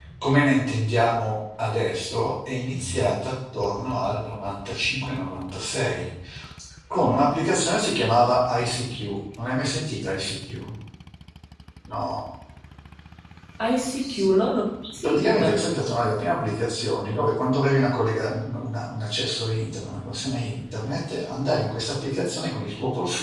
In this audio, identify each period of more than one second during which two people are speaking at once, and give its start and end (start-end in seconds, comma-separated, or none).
none